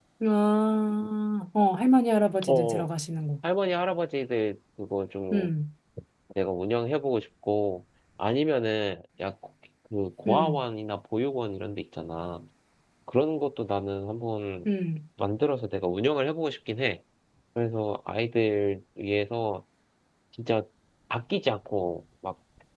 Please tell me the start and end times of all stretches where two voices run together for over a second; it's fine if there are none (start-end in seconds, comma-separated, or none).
none